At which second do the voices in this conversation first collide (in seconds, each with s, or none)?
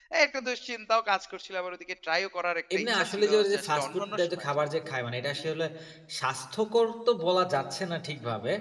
2.7 s